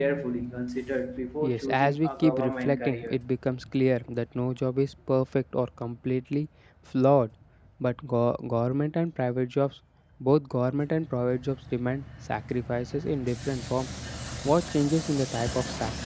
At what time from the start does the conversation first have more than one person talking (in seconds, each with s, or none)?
1.4 s